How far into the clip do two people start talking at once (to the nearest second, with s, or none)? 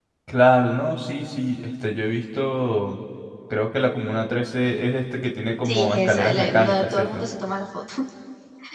6 s